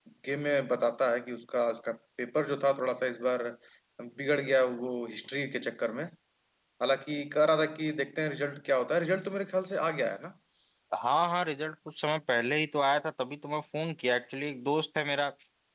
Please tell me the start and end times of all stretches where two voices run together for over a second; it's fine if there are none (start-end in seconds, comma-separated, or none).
none